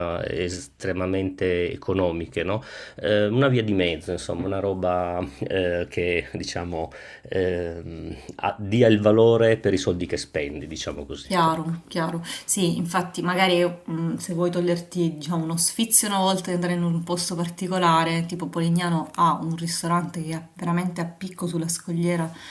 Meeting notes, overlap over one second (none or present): none